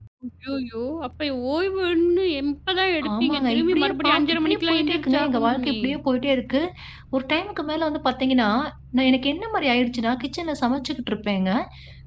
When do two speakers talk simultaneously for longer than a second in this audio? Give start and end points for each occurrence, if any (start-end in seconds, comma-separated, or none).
3.2-5.8